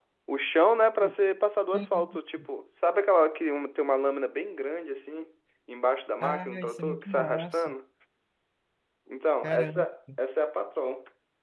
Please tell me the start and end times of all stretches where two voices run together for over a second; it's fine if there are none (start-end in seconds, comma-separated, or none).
6.2-7.7